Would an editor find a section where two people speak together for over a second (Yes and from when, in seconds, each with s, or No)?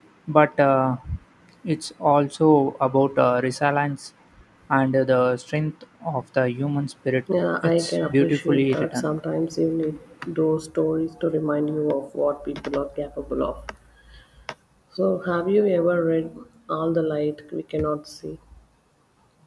Yes, from 7.6 s